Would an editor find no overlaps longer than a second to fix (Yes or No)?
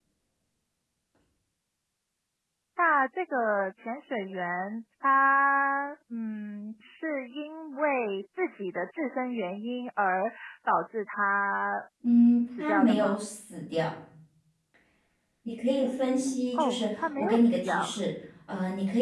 No